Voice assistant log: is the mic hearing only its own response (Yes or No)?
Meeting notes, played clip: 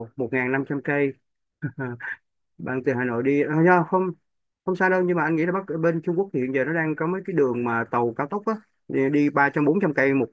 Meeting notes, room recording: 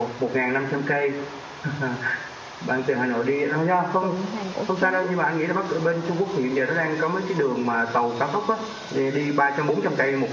No